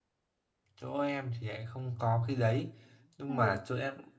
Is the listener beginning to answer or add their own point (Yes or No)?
No